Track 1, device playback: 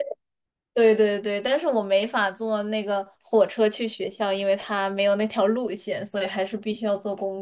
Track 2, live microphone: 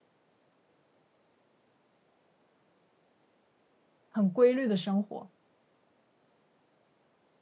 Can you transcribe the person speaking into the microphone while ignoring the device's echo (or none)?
很规律的生活。